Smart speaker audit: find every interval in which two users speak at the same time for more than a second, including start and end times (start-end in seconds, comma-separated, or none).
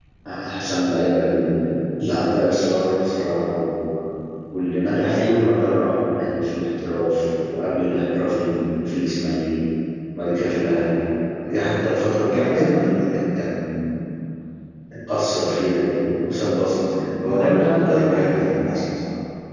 17.3-18.5